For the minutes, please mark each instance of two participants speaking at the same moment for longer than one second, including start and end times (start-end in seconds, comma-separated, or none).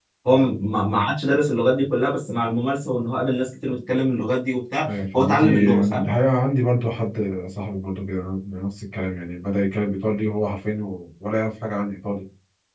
4.8-6.1